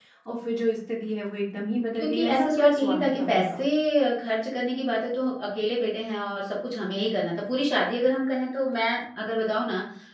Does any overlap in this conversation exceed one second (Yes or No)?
Yes